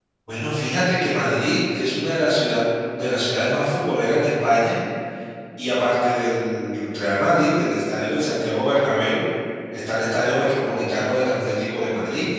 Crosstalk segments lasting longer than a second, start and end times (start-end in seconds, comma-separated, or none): none